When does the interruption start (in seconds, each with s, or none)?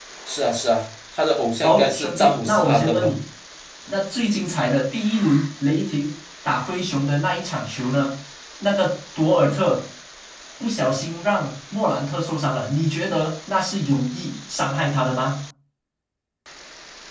1.6 s